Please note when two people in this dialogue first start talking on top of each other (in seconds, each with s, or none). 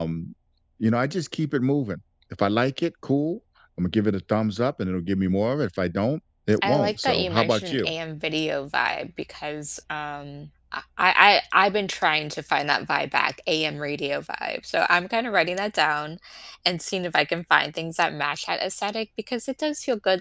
6.6 s